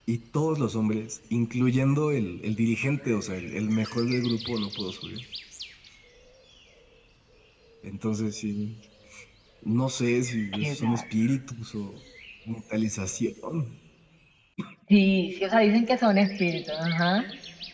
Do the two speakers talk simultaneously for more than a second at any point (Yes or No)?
No